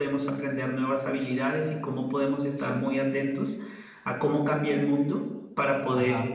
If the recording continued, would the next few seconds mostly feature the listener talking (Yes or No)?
No